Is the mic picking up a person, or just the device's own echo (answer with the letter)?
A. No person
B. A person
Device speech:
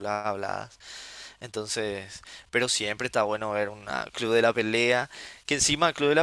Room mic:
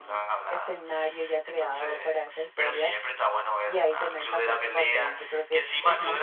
B